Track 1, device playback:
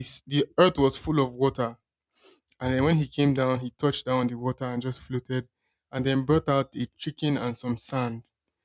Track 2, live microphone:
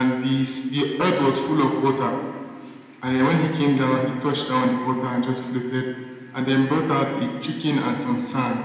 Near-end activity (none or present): none